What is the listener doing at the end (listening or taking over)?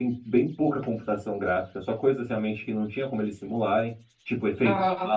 listening